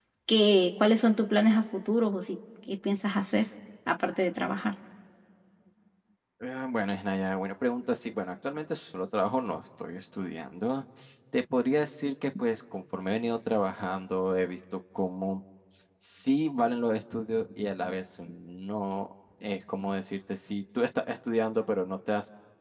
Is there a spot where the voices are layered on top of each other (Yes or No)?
No